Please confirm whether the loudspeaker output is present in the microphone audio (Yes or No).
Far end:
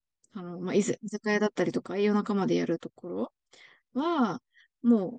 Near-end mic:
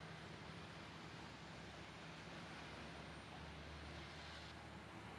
No